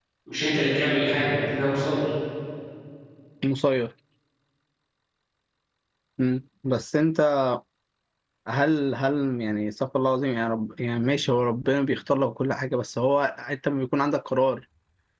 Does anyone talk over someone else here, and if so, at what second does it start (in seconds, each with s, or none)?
none